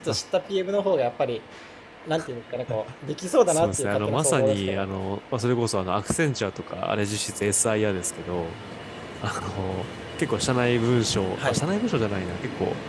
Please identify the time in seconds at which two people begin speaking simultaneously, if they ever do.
3.5 s

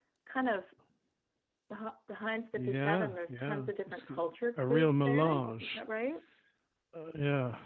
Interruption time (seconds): 2.6 s

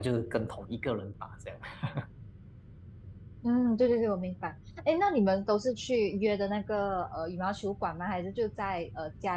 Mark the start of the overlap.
none

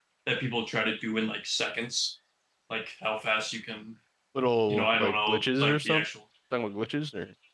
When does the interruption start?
4.7 s

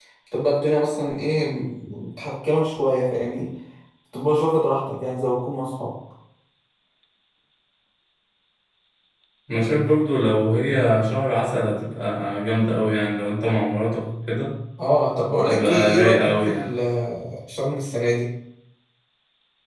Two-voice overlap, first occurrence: 15.4 s

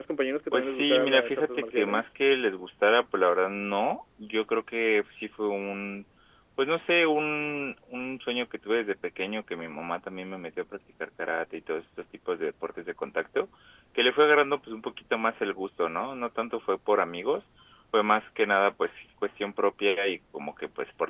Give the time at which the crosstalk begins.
0.5 s

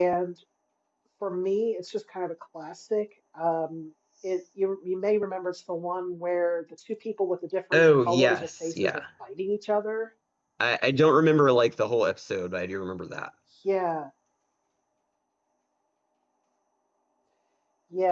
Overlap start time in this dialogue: 7.7 s

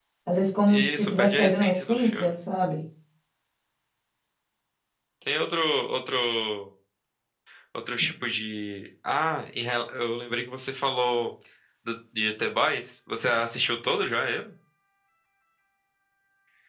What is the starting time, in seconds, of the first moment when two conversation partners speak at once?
0.7 s

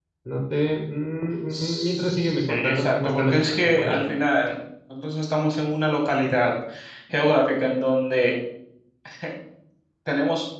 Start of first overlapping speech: 1.5 s

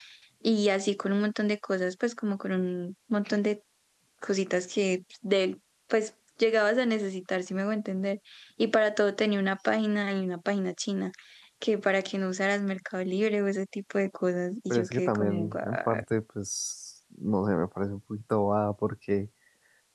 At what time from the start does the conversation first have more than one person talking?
14.7 s

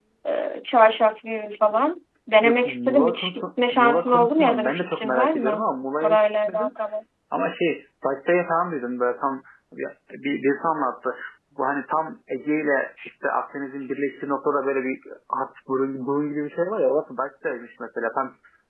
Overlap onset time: 2.4 s

